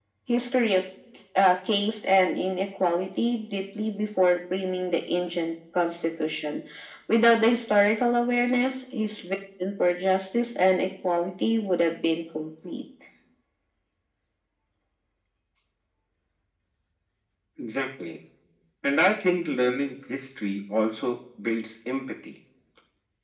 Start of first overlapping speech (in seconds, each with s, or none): none